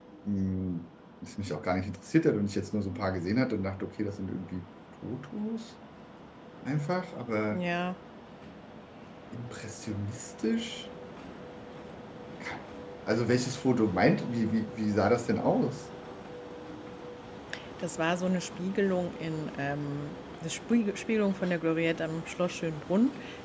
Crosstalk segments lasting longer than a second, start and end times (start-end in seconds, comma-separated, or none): none